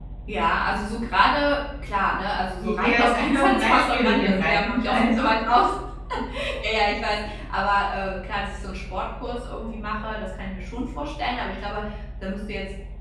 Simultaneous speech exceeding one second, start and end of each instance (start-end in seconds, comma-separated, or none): 2.6-5.3